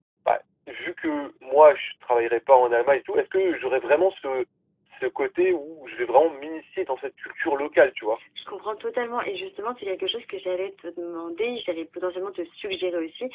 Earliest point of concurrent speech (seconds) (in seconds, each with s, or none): none